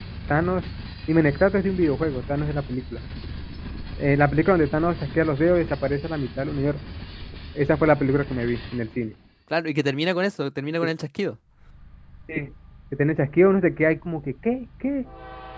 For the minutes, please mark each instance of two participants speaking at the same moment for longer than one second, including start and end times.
none

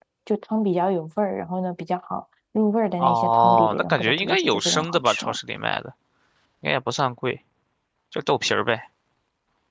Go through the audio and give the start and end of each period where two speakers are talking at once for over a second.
3.0-5.4

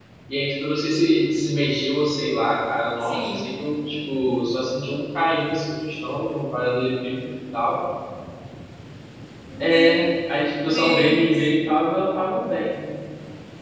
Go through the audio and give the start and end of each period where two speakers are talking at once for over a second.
9.6-11.5

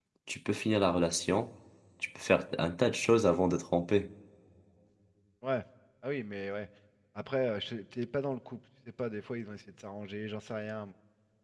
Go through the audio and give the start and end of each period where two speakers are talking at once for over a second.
none

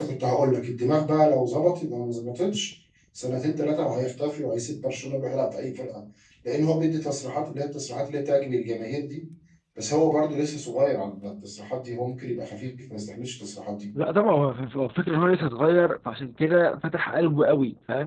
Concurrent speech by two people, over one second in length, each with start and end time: none

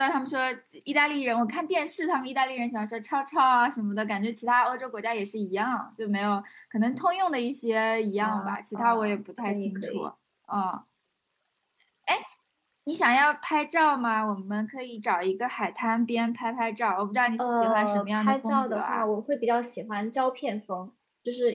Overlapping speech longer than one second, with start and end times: 8.2-10.1, 17.4-19.1

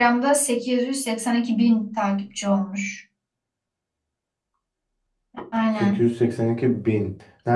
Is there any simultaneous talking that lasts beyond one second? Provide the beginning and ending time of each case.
none

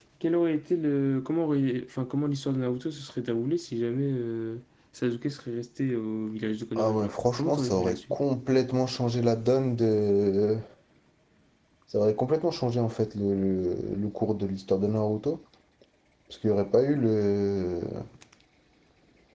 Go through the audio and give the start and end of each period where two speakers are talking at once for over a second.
6.8-8.2

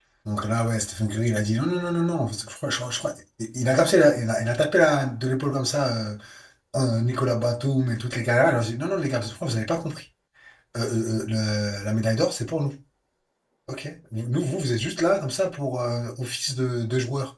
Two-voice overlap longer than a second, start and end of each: none

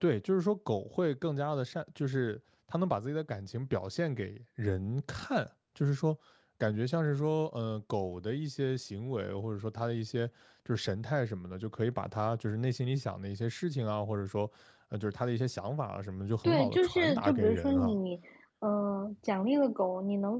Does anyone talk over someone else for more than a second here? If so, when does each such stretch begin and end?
16.4-18.0

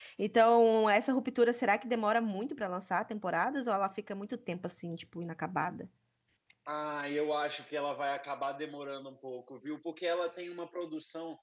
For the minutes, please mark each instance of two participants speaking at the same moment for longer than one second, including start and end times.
none

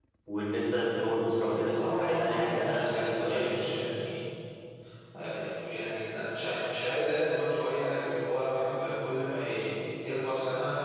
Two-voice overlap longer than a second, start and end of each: 1.7-3.5

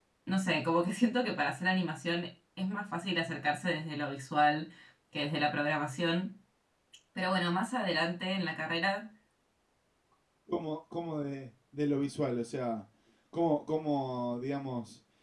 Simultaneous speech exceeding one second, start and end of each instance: none

